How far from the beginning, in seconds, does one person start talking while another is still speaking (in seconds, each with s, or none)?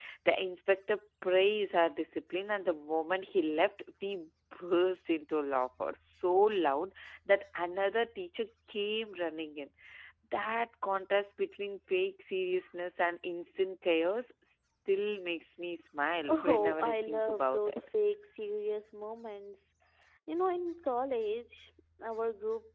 16.2 s